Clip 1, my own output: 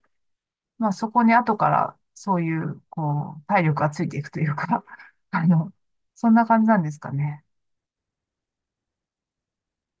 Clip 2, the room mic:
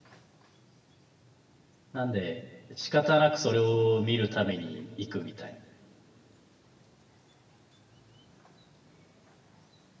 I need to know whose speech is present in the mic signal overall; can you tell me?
user only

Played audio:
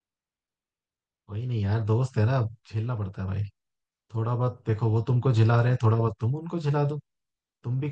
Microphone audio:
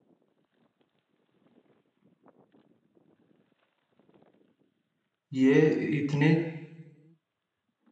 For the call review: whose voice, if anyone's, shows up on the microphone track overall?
user only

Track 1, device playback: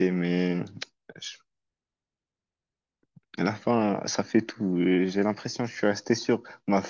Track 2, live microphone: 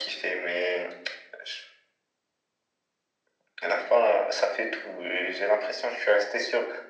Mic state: echo only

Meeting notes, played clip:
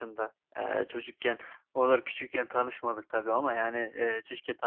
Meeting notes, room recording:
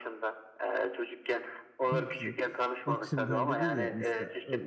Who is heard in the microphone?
both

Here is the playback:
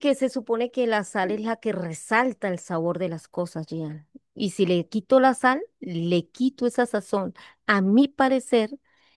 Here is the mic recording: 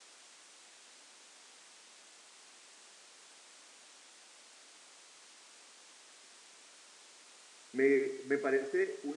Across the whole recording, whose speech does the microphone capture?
user only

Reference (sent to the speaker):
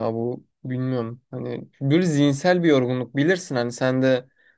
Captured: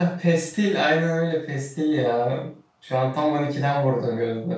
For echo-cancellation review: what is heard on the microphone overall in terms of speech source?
user only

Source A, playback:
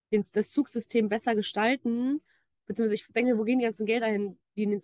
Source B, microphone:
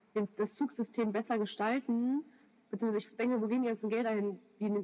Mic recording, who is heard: echo only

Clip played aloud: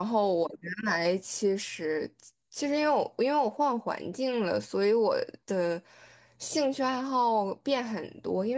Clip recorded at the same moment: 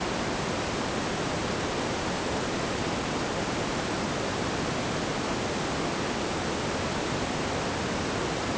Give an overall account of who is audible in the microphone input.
neither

